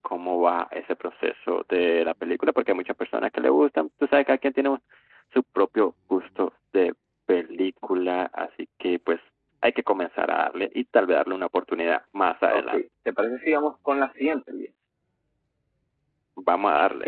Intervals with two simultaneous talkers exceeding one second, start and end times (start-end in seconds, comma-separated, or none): none